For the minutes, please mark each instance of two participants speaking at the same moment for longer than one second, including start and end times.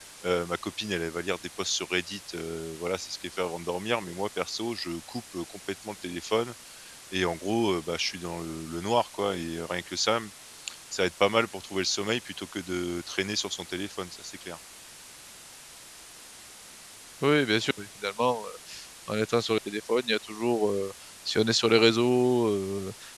none

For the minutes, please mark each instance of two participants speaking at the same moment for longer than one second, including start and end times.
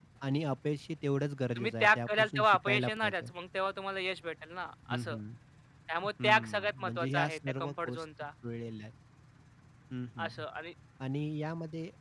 1.6-3.3, 6.2-8.0

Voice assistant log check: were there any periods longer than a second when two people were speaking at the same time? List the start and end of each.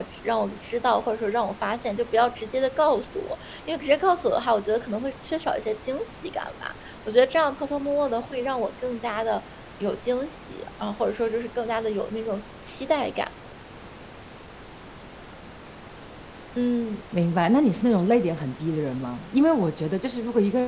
none

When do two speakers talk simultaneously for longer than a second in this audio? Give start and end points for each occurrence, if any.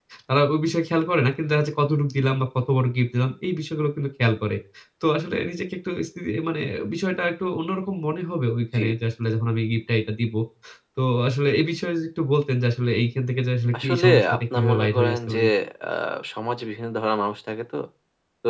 13.8-15.4

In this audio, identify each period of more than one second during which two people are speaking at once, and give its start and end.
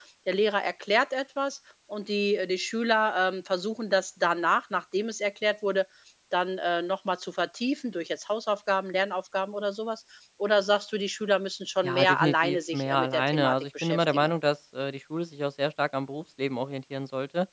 11.8-14.3

